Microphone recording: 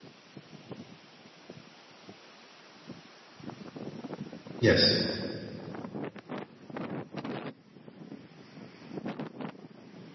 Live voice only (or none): Yes.